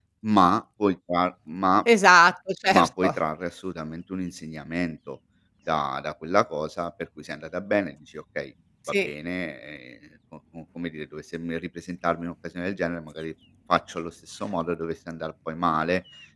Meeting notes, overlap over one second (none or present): none